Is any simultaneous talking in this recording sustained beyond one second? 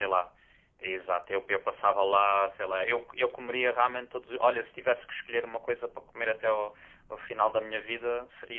No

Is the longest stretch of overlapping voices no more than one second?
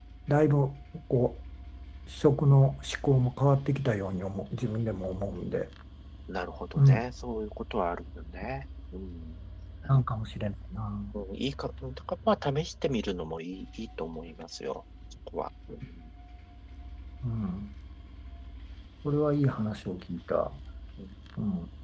Yes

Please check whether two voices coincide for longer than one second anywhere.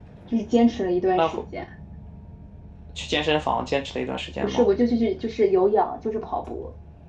No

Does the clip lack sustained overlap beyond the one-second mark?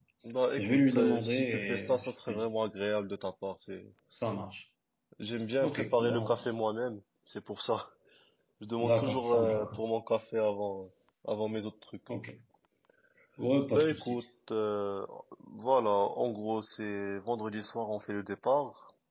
No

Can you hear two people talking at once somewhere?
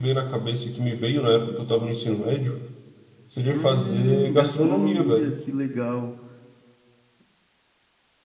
Yes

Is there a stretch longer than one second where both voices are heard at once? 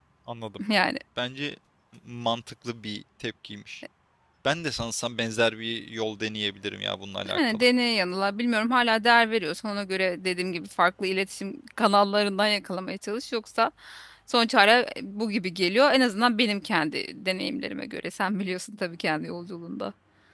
No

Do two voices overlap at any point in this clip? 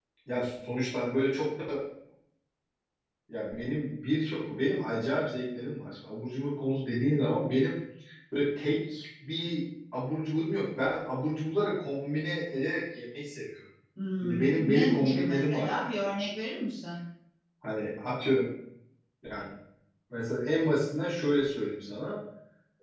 Yes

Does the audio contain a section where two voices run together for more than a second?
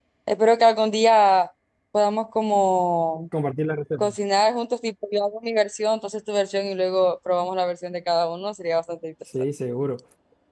No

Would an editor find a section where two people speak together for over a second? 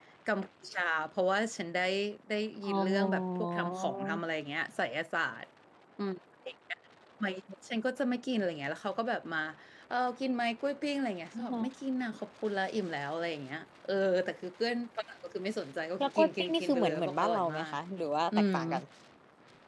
Yes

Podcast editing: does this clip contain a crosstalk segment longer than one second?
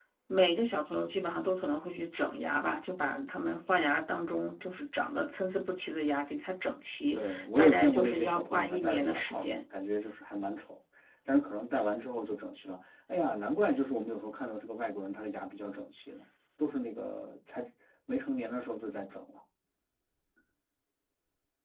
Yes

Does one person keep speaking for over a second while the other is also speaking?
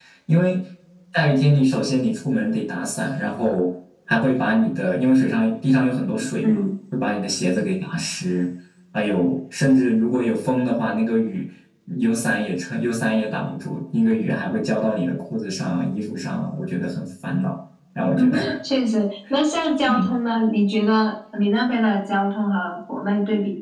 No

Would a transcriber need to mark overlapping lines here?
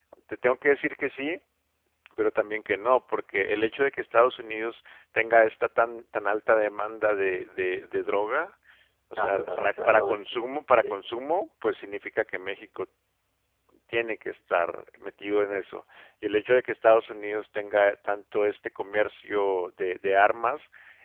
Yes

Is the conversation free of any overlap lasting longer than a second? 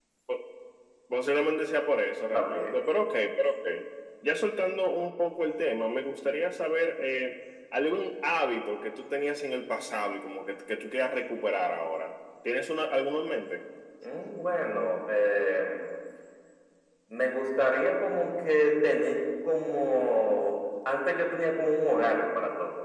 Yes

